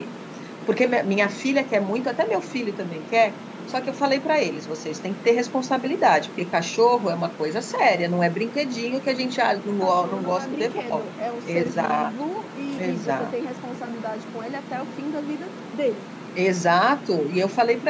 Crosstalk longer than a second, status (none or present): present